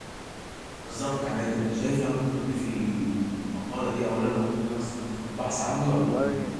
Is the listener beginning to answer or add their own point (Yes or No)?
Yes